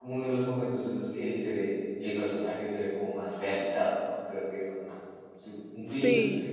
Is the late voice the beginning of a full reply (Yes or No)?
Yes